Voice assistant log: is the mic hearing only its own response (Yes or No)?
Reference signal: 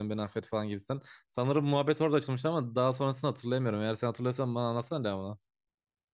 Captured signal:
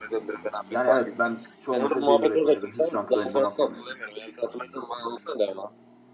No